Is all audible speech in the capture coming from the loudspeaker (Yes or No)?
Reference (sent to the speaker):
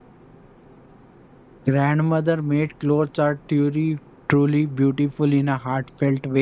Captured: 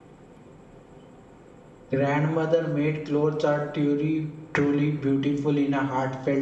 Yes